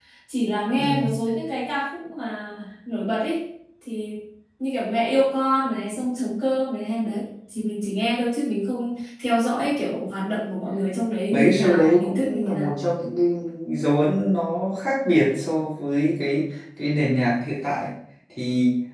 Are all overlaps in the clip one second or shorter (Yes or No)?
No